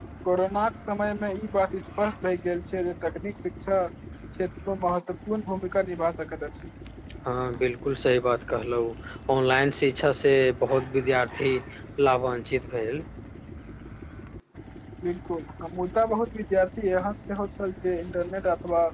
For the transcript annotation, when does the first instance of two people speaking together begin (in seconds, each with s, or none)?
none